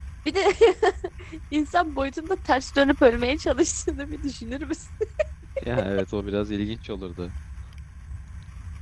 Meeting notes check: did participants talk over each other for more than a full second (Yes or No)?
No